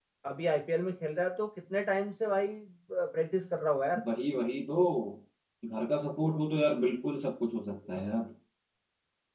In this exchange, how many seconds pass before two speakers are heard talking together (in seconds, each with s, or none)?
none